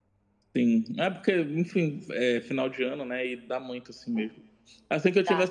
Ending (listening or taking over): listening